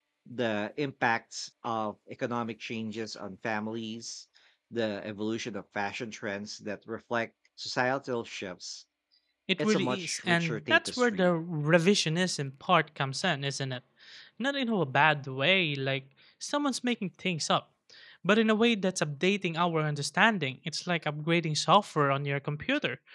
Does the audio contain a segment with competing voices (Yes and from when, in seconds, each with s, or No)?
Yes, from 9.6 s